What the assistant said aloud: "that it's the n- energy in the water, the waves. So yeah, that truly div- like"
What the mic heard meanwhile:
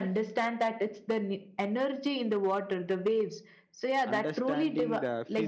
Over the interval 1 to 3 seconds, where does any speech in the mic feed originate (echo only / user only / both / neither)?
echo only